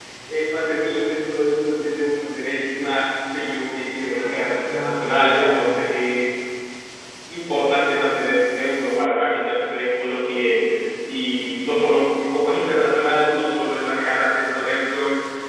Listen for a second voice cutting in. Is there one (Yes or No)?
Yes